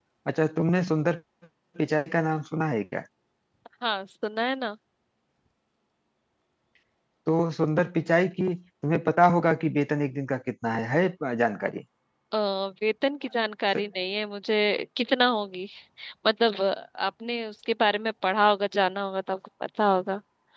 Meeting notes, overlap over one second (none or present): none